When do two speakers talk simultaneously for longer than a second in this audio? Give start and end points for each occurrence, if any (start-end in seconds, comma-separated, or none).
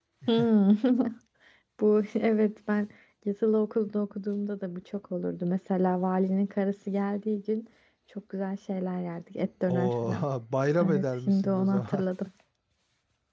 10.8-12.0